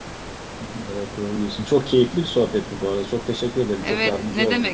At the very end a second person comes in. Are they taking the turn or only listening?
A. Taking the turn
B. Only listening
A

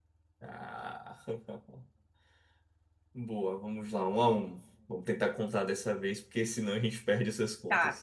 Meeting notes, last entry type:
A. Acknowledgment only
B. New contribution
B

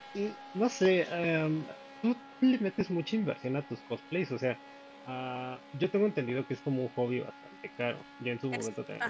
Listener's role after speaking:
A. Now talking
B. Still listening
B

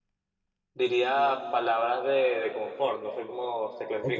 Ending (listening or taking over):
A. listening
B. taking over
B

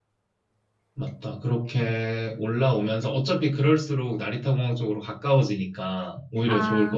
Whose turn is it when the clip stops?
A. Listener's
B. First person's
A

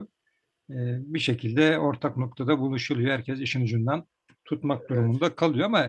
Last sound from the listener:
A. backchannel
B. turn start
A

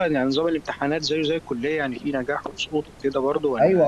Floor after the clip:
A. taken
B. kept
A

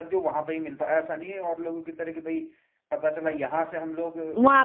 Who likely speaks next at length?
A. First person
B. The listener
B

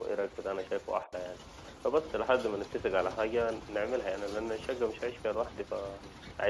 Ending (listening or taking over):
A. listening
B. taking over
B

